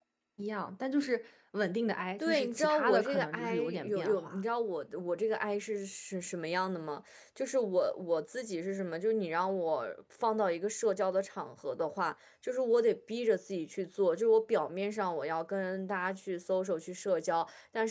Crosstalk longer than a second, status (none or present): present